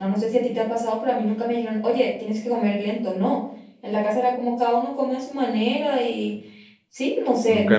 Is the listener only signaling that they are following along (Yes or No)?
No